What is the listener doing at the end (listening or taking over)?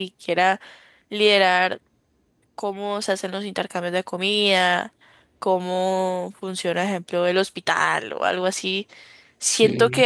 listening